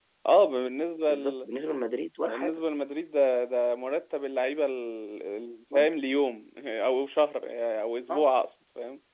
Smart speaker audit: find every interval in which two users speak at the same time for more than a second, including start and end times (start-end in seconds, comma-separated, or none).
none